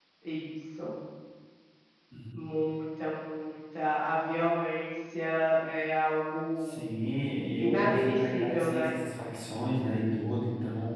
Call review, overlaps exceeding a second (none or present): present